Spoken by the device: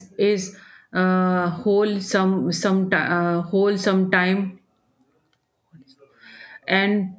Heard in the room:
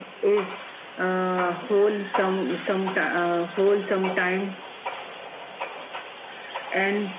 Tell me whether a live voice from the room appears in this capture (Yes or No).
No